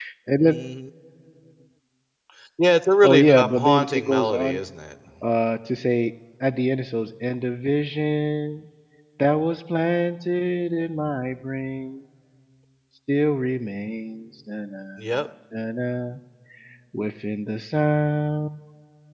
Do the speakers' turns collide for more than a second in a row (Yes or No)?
Yes